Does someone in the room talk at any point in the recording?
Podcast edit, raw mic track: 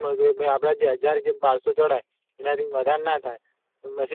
Yes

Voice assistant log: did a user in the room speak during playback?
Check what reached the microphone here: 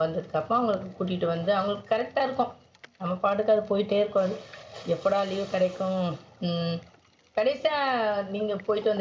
Yes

